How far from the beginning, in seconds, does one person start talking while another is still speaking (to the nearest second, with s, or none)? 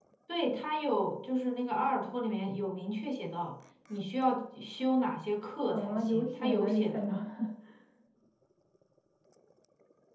6 s